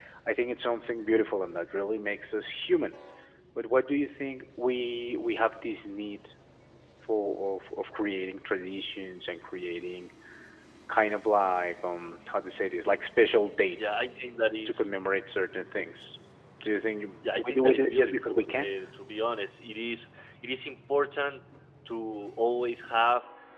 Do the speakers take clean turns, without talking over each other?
No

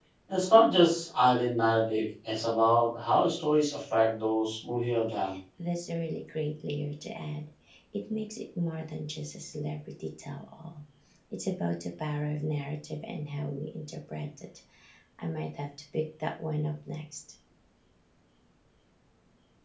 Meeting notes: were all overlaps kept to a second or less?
Yes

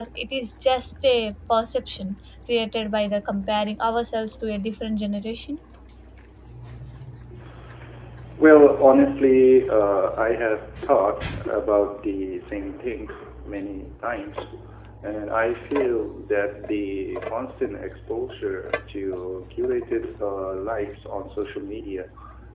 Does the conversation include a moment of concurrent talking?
No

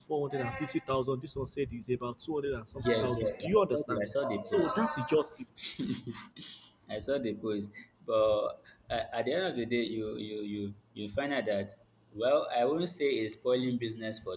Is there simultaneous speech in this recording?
Yes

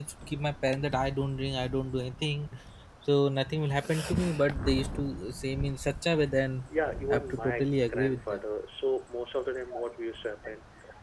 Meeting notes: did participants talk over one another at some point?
Yes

